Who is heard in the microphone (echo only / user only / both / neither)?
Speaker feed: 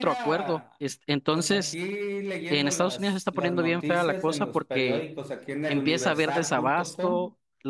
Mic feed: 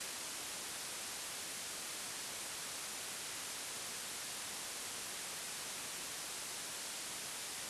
neither